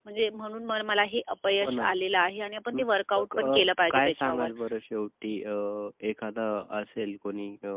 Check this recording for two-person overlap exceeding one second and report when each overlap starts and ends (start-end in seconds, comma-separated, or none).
3.2-4.5